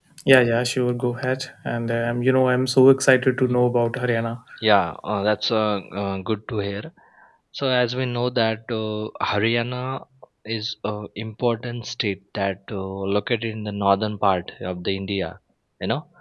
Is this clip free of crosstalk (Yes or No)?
Yes